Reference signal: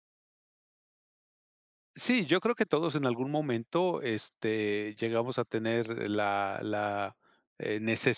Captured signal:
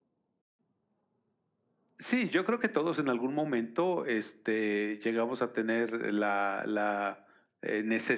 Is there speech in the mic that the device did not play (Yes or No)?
No